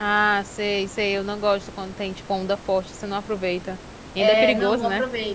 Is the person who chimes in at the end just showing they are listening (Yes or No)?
No